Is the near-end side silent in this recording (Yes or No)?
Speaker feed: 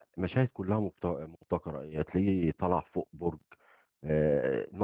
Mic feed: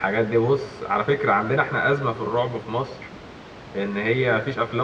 No